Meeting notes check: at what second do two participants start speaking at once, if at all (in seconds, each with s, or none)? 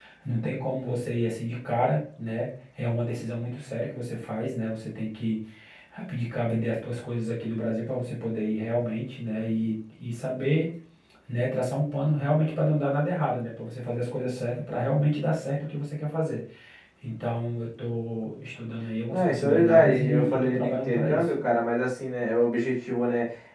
19.1 s